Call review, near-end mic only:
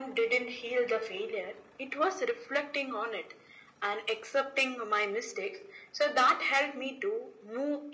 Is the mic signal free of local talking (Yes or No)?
Yes